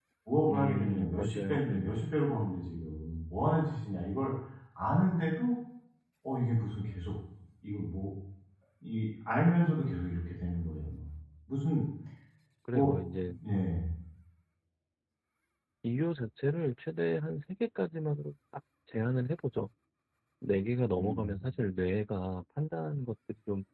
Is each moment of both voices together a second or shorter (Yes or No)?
No